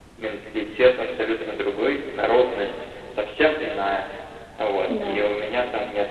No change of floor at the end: Yes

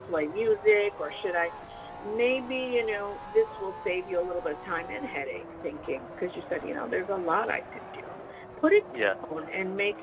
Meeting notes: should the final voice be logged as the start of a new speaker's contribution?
No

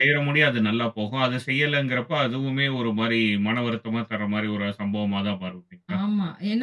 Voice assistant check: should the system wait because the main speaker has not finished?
No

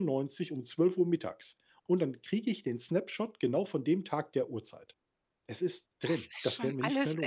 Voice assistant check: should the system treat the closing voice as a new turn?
Yes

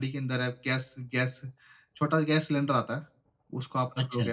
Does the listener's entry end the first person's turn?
No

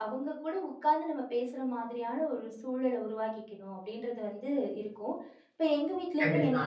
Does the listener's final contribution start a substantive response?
No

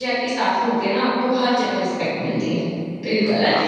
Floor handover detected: No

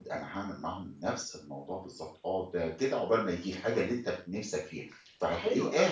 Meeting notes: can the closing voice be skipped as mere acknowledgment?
No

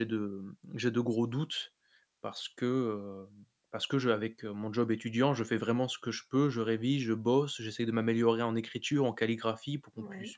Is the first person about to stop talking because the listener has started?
No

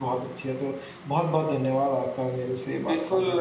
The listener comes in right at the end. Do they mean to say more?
Yes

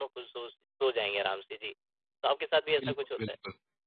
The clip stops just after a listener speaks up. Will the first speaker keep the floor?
No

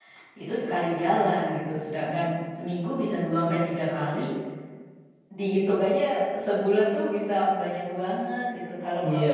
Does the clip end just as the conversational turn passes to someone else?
Yes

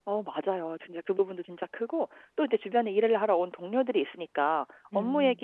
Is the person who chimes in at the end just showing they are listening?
Yes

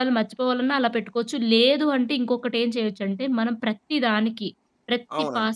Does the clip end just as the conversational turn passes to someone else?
No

